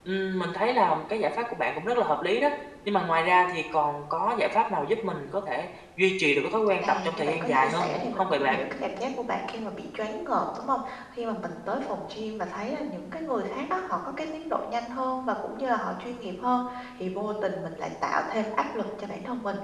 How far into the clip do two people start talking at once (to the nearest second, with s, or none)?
7 s